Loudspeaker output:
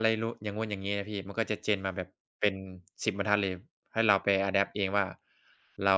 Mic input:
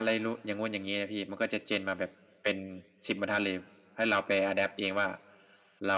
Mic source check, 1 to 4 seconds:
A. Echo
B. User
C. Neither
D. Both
A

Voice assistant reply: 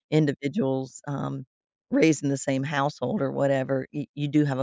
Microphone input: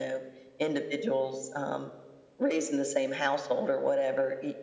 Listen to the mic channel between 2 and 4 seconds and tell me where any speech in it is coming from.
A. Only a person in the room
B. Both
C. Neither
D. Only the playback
D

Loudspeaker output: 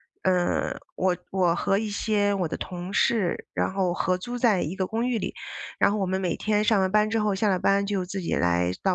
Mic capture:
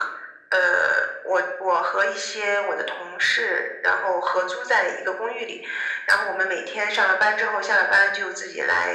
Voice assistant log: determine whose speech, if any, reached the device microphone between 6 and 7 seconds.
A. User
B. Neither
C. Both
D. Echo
D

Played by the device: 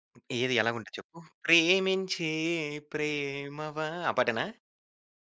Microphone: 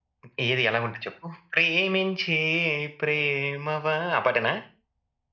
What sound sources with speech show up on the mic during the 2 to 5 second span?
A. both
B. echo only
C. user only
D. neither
B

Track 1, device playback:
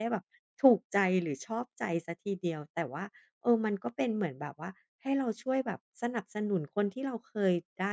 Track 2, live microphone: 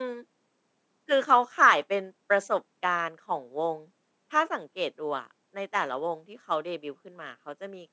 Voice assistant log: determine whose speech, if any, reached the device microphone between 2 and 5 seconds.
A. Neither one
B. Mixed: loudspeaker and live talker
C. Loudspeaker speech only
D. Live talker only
D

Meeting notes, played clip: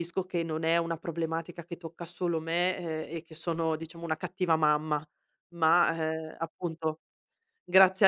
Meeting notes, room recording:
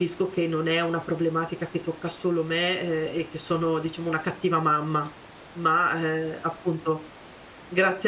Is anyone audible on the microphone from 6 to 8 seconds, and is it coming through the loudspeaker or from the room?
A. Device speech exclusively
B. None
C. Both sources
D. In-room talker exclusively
A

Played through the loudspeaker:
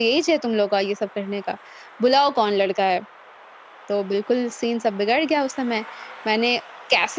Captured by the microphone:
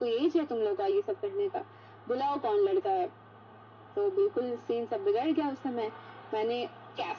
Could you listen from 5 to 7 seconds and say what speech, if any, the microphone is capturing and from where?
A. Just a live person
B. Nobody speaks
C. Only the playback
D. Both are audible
C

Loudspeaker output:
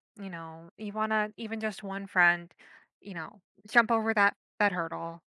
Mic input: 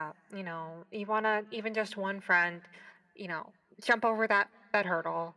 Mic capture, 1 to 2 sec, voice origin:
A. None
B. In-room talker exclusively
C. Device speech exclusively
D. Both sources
C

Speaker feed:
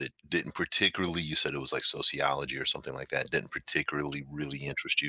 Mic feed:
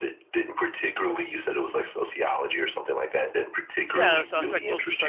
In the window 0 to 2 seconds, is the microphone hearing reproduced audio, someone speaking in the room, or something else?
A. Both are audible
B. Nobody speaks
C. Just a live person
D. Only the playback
D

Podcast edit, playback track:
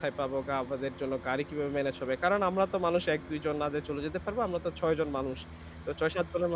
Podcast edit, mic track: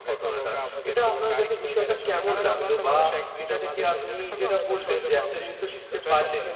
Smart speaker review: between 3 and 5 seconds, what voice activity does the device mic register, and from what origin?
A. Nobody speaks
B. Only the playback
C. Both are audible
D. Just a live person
C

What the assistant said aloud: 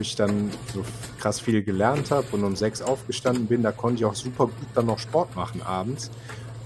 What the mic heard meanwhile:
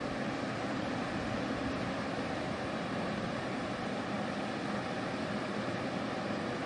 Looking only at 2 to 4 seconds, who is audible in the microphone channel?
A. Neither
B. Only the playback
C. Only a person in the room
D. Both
A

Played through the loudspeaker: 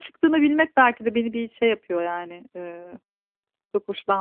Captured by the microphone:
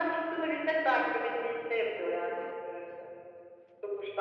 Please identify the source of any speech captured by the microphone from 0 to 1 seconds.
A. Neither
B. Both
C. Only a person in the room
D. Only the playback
D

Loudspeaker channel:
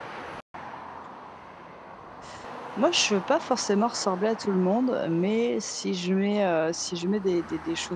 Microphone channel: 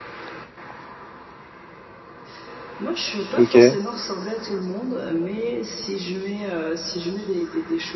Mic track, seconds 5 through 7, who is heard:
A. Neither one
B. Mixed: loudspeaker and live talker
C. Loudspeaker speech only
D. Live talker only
C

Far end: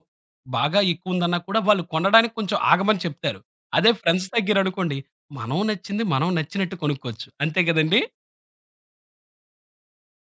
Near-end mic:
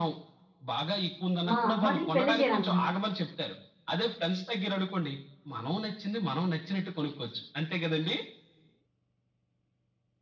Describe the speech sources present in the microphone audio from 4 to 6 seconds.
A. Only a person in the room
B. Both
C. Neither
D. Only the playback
D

